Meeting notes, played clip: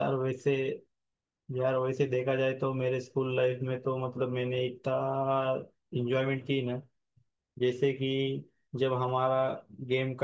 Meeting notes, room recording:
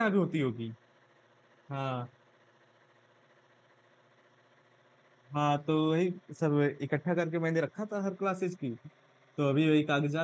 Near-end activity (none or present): present